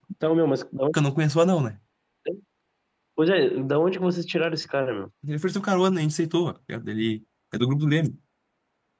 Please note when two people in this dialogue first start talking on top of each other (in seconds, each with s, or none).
none